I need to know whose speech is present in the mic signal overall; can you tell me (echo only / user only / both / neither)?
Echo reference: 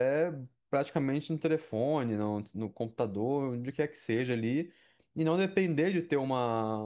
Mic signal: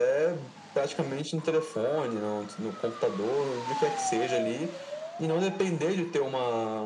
echo only